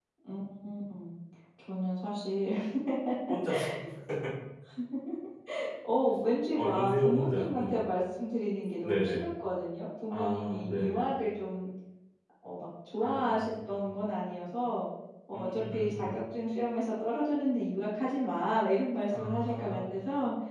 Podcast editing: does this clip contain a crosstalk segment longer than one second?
Yes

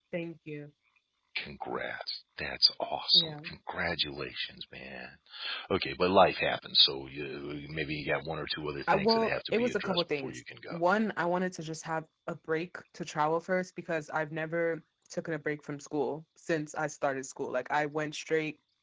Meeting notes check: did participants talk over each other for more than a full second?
Yes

